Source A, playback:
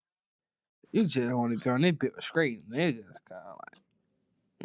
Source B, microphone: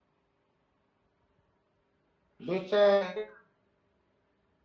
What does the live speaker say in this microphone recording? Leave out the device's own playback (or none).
Bitch ass,